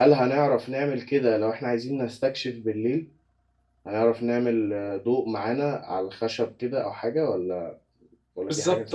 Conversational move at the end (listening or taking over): taking over